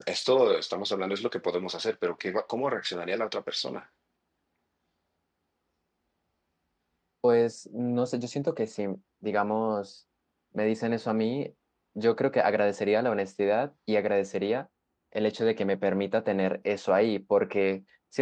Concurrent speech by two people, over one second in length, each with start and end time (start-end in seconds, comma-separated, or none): none